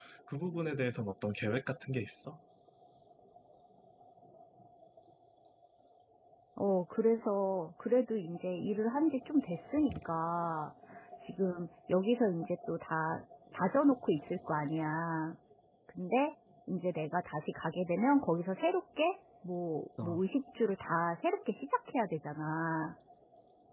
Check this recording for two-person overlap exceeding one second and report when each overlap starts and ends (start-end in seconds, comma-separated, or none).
none